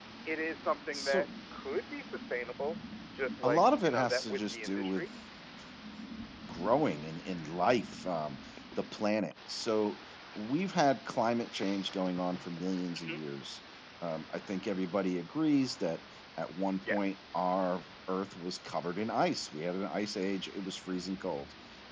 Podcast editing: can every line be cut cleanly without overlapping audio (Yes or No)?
No